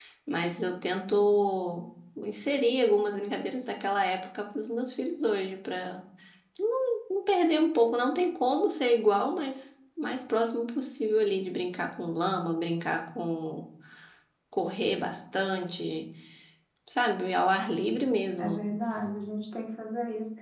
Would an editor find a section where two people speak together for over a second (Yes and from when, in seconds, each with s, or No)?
No